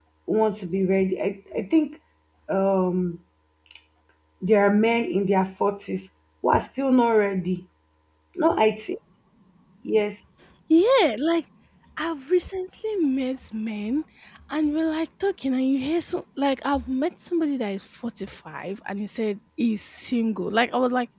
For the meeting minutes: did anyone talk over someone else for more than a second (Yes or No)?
No